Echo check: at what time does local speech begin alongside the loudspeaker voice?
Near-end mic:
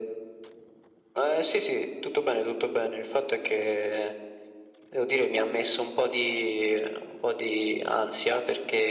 none

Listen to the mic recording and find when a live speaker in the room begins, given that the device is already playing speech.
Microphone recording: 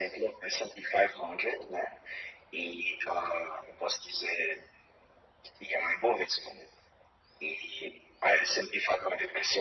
none

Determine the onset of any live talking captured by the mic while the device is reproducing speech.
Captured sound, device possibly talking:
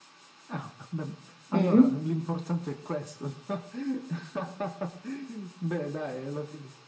1.5 s

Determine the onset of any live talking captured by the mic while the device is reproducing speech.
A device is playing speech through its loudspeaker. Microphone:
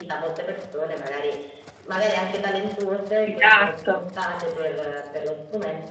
3.2 s

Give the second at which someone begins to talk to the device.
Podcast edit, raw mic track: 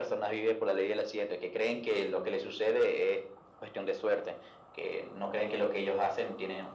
none

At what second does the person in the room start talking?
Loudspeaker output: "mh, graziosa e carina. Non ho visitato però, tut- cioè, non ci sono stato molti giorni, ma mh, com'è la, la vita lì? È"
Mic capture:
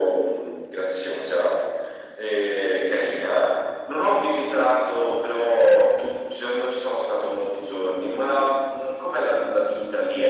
none

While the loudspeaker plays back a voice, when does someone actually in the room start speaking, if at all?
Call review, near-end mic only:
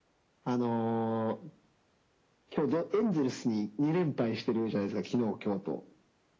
none

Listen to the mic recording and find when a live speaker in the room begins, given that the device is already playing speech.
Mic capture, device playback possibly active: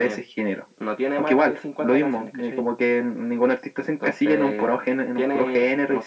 none

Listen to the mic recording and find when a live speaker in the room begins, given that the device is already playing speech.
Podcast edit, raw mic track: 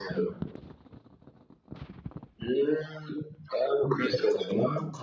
4.0 s

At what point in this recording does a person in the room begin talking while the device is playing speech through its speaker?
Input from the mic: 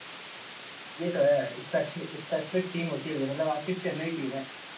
1.0 s

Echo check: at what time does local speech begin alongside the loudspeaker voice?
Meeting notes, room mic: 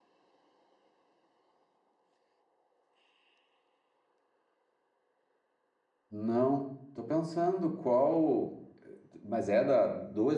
6.1 s

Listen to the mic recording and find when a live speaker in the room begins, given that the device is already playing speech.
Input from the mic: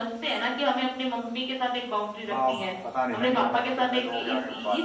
2.3 s

